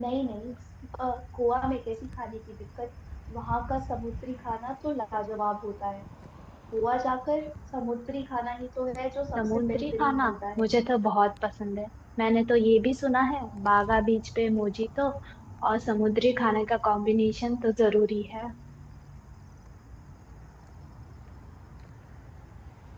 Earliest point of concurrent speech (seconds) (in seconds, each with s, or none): 9.3 s